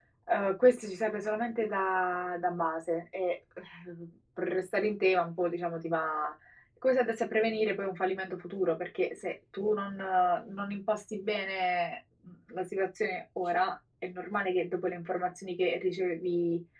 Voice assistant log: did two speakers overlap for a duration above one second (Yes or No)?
No